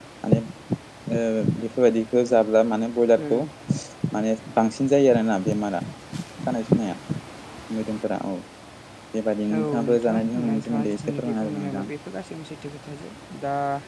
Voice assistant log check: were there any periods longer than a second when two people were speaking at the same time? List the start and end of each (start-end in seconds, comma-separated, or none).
9.6-11.8